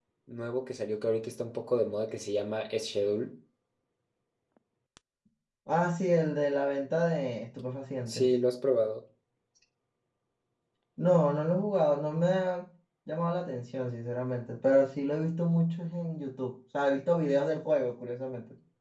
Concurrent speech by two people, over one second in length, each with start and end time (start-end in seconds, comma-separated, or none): none